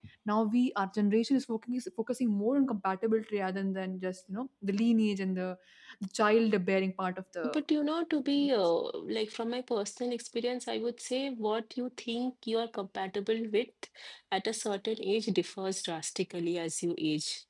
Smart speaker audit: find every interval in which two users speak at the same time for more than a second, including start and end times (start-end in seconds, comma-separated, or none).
none